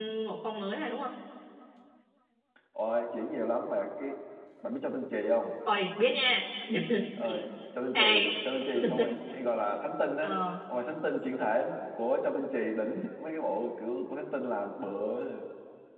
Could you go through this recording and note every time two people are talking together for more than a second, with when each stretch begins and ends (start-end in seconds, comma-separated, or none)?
none